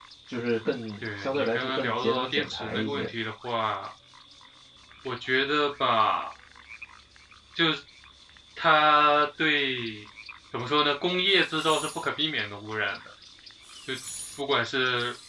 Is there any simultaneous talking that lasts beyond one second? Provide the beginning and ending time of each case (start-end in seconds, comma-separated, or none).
1.0-3.1